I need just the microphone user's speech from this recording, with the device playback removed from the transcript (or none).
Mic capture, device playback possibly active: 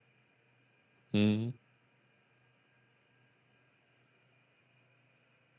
Mhm.